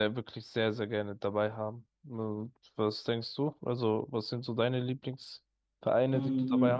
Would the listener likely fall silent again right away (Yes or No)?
No